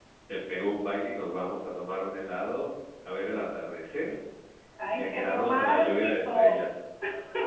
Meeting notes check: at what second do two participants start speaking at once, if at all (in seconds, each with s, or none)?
5.0 s